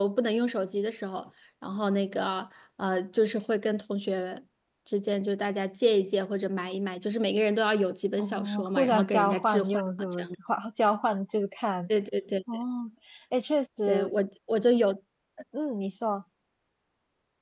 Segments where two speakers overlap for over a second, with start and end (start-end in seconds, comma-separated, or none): 8.2-10.3